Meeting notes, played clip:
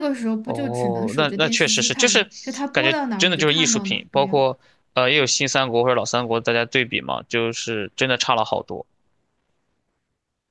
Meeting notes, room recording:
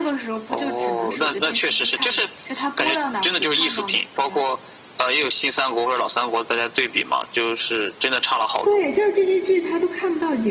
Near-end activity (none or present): present